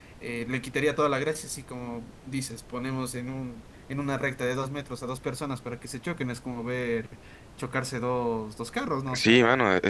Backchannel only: No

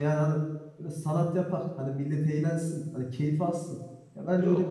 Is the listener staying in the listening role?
Yes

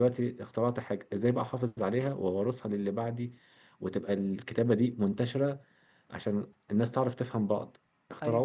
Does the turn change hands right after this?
No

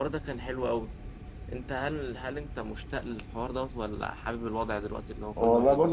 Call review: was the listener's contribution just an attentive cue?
No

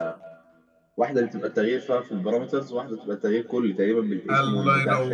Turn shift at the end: Yes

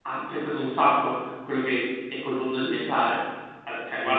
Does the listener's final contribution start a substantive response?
No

